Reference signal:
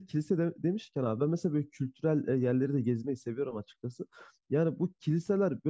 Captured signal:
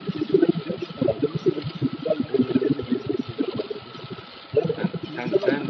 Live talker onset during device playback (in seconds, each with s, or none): 4.8 s